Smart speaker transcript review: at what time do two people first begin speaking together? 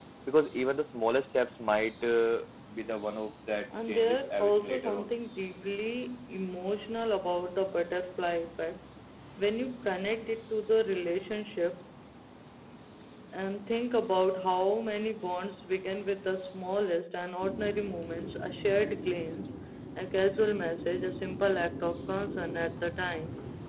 4 s

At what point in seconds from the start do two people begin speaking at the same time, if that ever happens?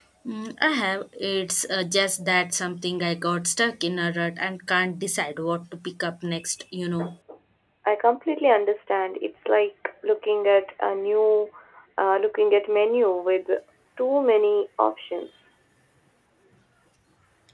none

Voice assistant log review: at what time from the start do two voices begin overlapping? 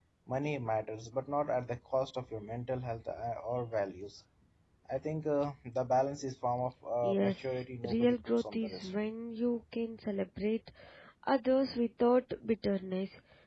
7 s

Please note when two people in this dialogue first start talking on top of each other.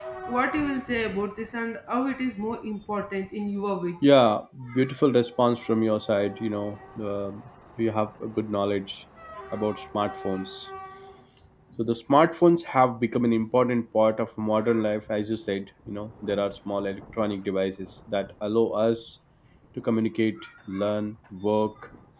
none

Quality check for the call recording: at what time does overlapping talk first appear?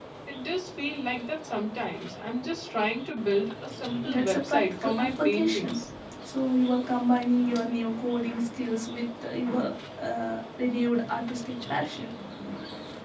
4 s

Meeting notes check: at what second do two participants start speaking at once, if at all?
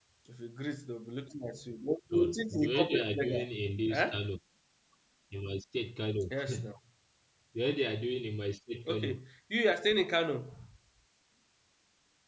2 s

